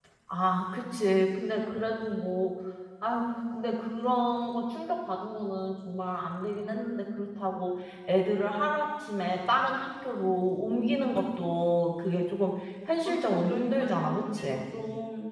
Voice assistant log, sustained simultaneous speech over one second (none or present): present